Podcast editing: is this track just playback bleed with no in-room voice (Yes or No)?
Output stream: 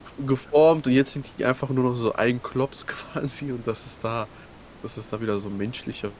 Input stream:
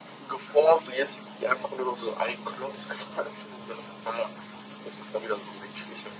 Yes